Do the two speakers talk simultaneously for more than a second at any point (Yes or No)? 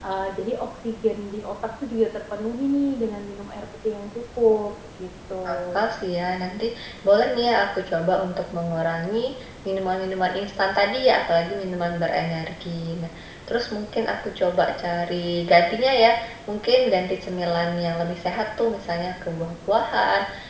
No